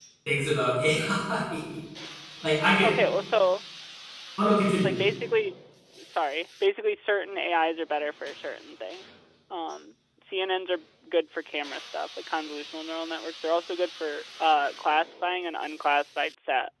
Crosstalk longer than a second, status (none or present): none